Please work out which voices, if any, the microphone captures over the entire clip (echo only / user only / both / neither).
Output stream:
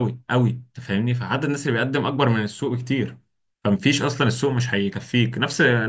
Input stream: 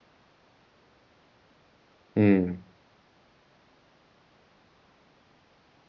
user only